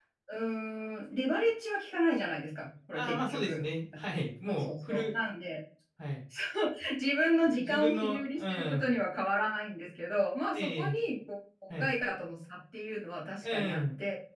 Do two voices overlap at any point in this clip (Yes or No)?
Yes